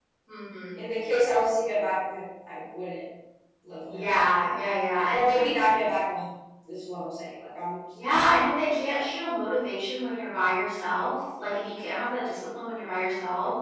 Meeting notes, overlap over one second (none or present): none